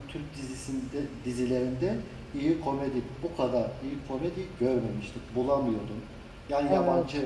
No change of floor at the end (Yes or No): Yes